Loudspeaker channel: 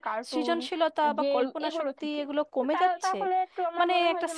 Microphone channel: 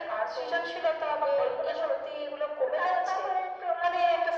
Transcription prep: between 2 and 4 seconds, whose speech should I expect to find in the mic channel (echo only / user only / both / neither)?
echo only